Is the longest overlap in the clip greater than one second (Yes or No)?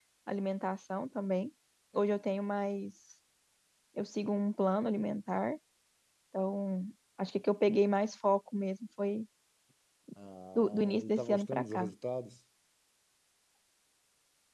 Yes